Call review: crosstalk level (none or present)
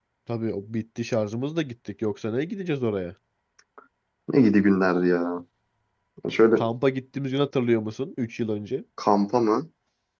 none